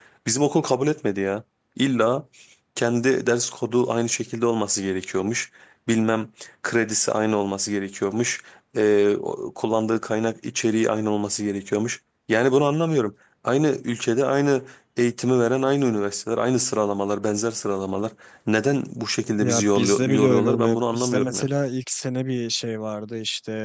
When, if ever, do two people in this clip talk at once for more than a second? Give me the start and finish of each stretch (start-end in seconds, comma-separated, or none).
19.4-21.5